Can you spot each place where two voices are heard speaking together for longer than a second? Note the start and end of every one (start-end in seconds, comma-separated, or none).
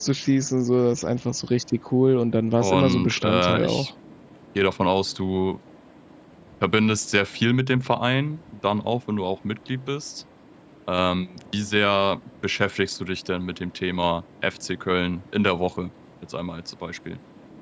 2.6-3.9